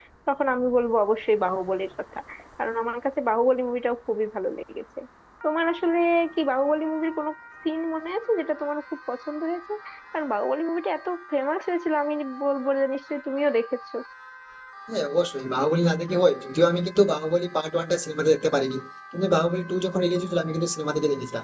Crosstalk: none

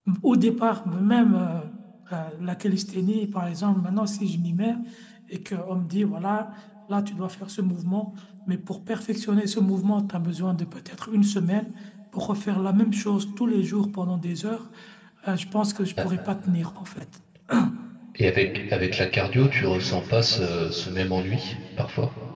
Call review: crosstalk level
none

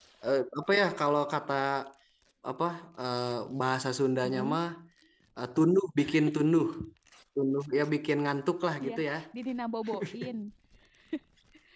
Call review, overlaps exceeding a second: none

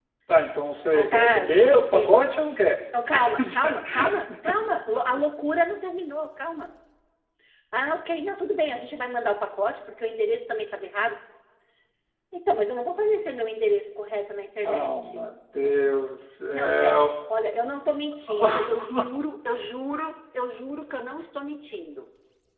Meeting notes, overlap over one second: present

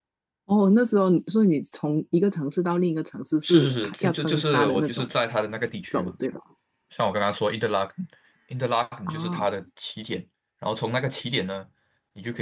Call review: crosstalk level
present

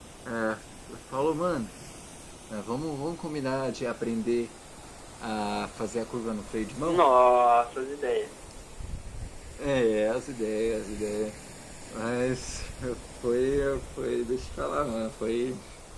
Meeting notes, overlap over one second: none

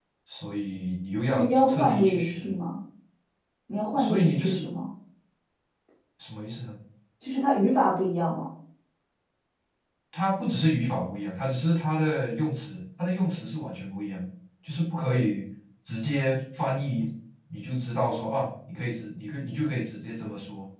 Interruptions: present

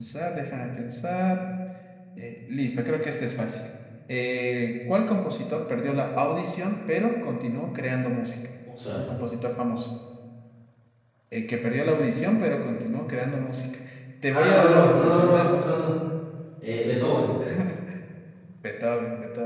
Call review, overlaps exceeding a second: present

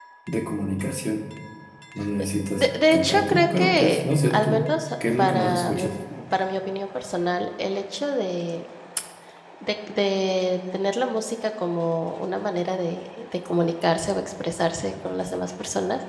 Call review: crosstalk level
present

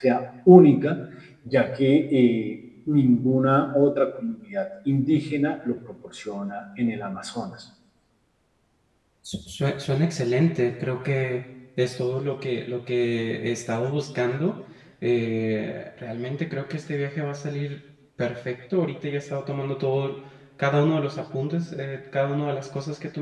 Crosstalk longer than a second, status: none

